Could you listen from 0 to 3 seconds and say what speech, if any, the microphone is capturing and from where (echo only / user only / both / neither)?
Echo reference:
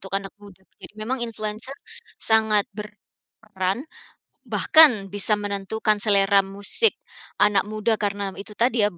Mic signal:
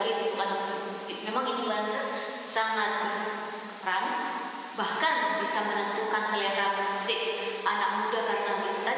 echo only